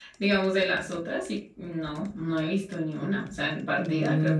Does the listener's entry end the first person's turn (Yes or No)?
Yes